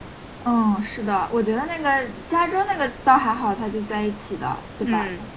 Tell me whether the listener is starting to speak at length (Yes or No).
No